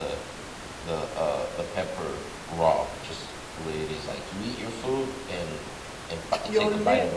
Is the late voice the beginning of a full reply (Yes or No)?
Yes